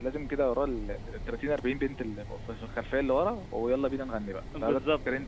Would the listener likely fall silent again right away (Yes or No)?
No